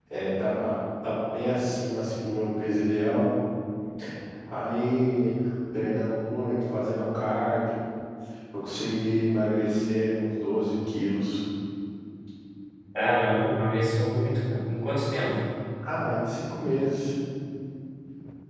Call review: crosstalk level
none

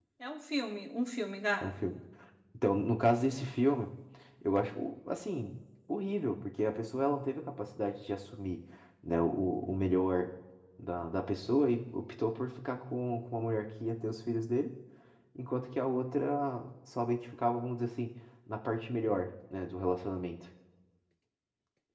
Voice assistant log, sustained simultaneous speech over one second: none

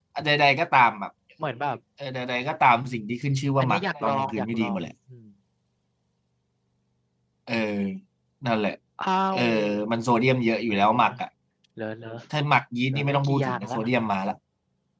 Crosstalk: present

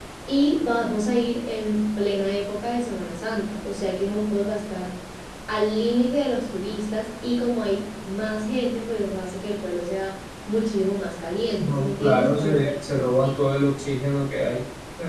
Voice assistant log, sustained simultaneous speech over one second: present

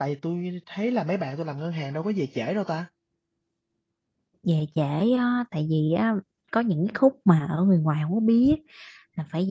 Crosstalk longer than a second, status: none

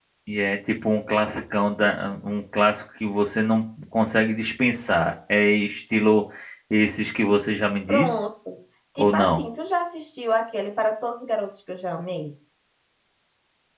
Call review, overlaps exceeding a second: none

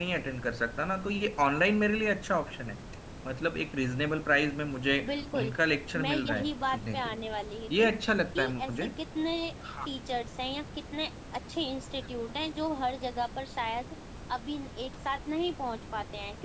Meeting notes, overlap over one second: present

